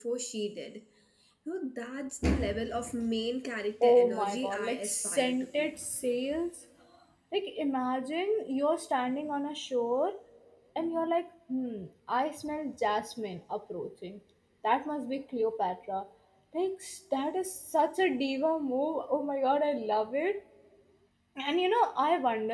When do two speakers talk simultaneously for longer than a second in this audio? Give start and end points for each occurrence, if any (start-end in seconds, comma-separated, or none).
3.8-5.8